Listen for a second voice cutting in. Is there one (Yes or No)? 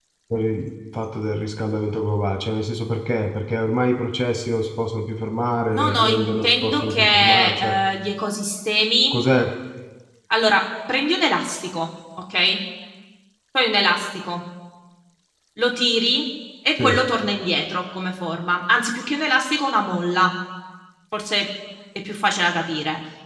Yes